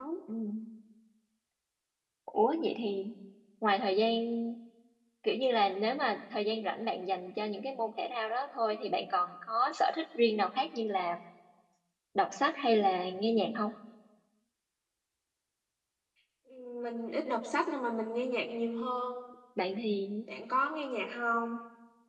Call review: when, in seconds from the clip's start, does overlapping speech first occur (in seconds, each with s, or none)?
none